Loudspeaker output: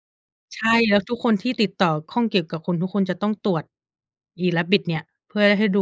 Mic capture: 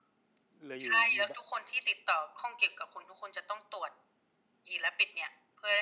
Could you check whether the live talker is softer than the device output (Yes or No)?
Yes